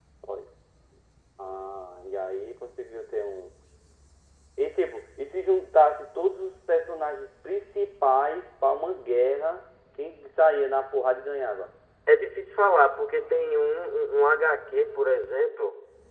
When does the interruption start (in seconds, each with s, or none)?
none